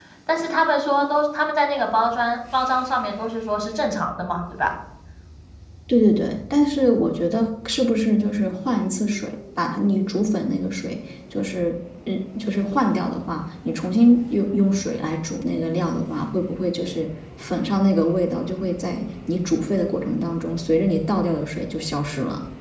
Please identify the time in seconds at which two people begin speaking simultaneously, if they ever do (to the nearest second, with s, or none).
none